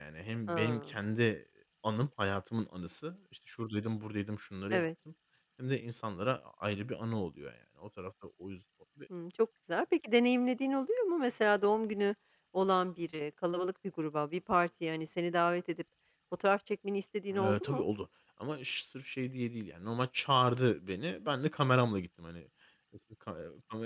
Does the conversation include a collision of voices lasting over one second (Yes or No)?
No